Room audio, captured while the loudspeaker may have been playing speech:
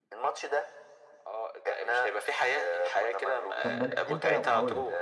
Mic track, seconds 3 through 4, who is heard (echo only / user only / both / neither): both